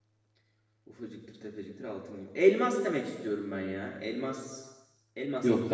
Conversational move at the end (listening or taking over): taking over